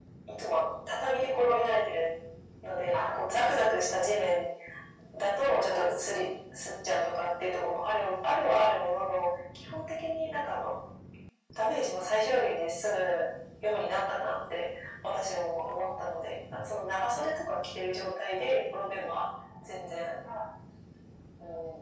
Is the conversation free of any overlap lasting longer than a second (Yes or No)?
No